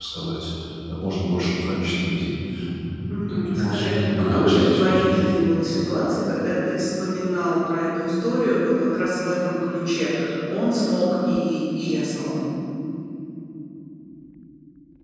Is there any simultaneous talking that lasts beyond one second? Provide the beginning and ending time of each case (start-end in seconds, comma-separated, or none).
3.1-5.1